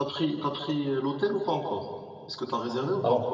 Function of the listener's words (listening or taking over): taking over